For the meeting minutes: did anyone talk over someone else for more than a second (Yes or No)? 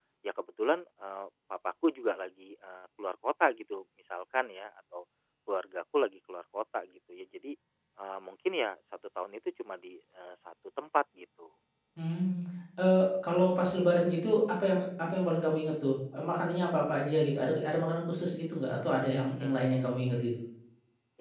No